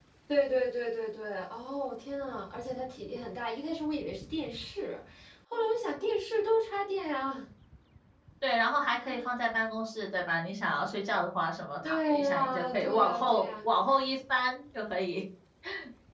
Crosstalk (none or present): present